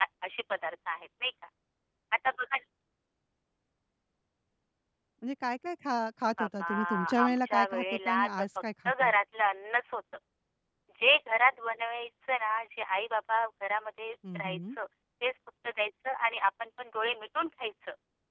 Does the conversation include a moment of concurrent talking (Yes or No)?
Yes